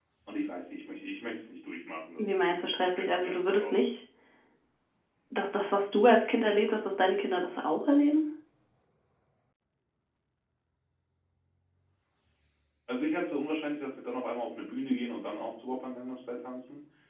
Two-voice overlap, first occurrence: 2.2 s

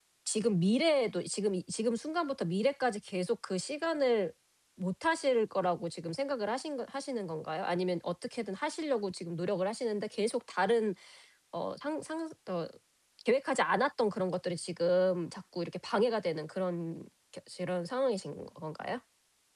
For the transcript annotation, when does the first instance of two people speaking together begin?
none

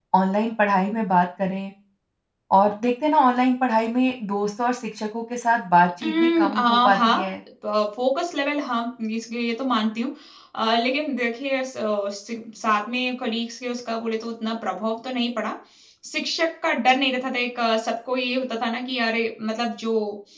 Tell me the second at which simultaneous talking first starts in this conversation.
6.0 s

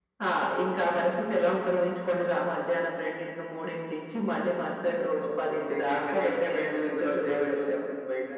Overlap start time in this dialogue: 5.2 s

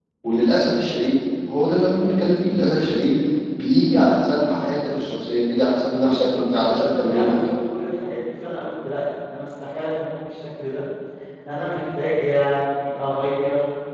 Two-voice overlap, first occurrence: 6.0 s

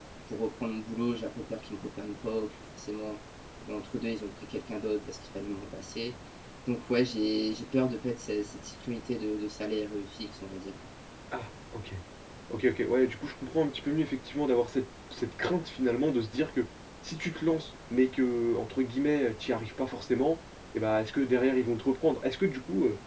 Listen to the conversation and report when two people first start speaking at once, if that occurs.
none

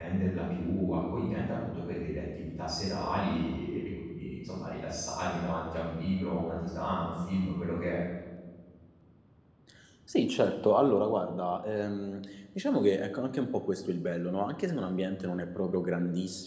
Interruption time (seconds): none

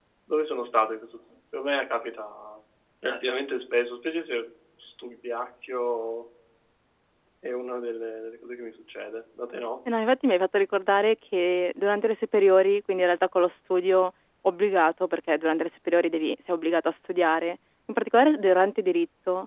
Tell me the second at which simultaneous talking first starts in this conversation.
none

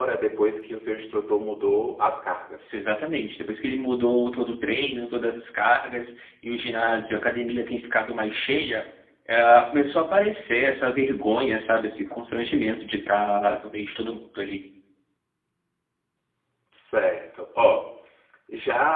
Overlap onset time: none

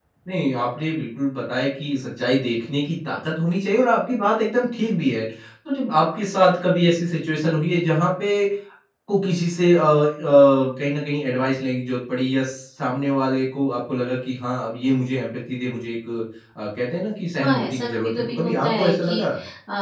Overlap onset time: 17.4 s

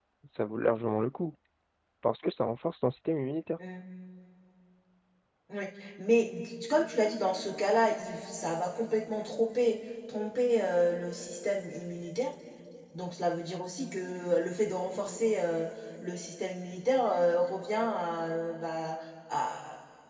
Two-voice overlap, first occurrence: none

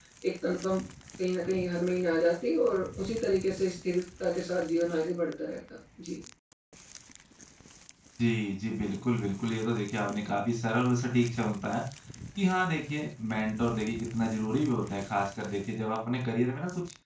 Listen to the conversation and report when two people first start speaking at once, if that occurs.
none

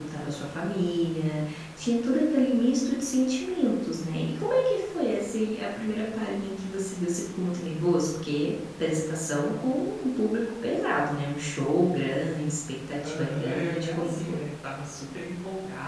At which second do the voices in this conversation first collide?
13.0 s

